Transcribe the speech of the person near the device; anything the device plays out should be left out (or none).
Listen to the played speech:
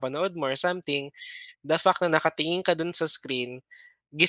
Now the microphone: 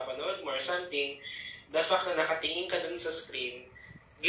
none